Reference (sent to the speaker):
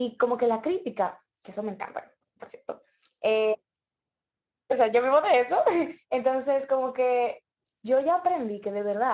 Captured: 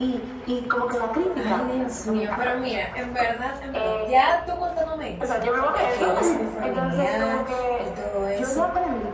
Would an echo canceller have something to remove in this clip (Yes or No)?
Yes